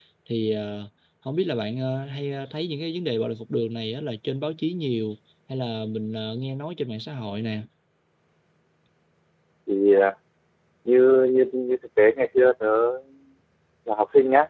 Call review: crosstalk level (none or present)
none